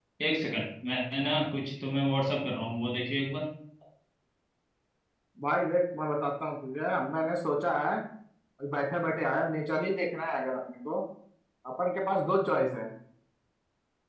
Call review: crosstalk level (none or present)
none